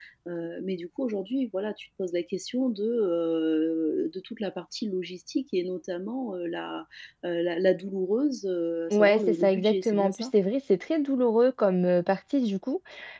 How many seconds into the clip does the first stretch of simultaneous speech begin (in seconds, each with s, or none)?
8.9 s